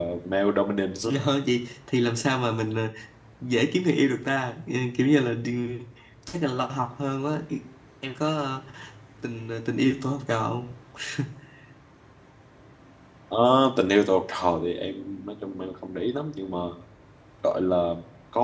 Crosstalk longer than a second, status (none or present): none